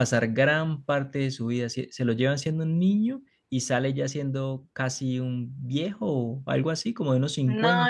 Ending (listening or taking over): taking over